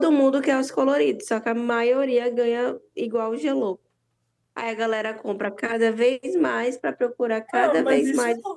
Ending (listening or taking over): taking over